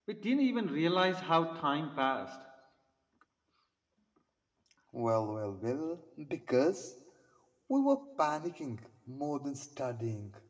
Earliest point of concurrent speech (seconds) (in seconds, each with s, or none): none